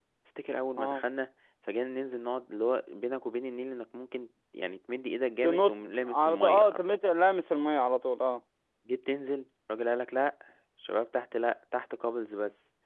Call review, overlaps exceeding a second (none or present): present